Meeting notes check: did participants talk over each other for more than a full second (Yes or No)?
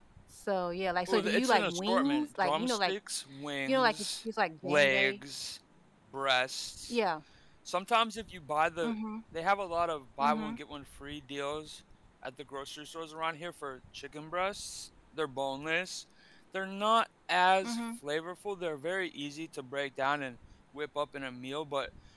Yes